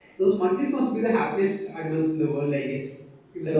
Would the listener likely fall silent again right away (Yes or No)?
No